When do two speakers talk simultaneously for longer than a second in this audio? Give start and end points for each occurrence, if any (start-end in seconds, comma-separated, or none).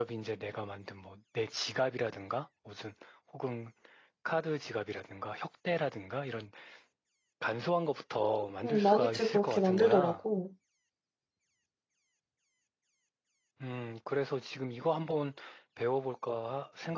8.6-10.2